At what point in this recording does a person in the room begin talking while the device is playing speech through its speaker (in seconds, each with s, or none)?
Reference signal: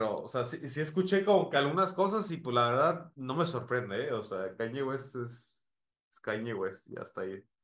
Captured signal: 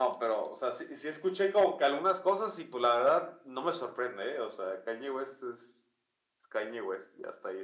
none